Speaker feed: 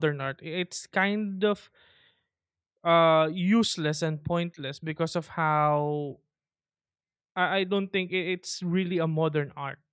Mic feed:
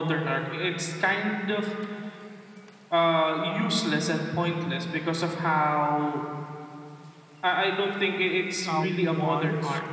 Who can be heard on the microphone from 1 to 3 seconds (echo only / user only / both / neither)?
echo only